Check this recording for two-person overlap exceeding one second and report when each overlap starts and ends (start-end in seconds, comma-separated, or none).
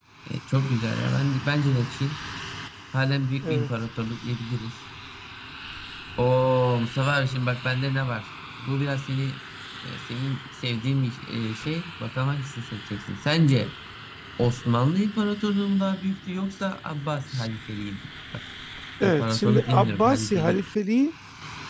19.0-20.6